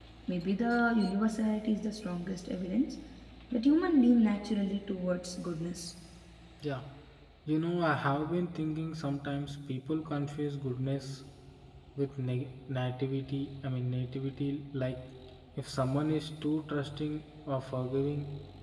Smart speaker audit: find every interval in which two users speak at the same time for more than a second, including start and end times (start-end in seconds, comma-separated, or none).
none